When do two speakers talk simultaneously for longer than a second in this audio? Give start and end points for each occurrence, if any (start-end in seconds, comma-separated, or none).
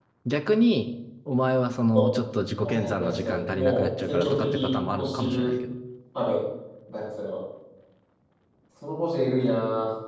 2.7-5.5